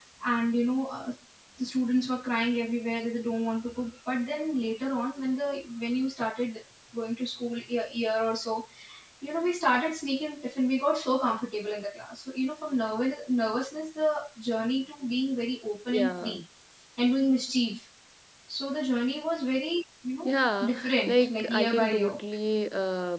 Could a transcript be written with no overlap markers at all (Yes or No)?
No